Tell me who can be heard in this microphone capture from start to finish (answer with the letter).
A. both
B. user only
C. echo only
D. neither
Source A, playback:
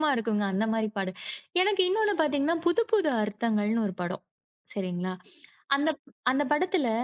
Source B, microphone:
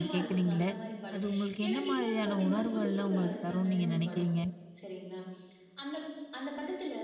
A